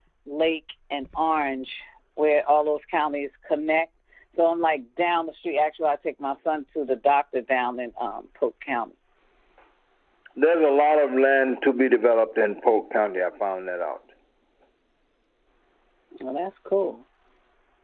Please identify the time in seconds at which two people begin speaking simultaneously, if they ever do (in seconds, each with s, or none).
none